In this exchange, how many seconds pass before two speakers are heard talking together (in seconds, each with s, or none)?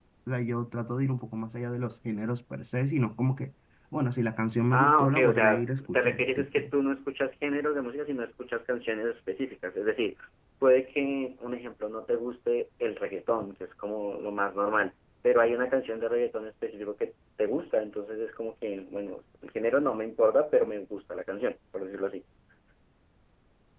4.7 s